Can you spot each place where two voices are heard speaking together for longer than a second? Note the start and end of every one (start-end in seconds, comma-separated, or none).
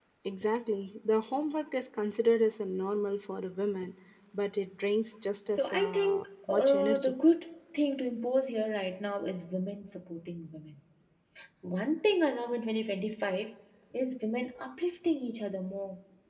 5.5-7.1